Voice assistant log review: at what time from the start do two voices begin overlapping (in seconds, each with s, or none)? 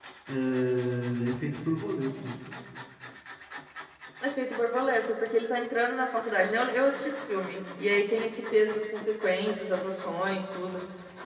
none